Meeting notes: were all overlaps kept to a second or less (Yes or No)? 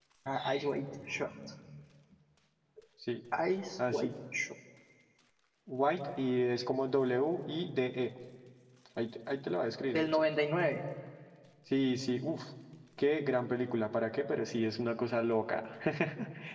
Yes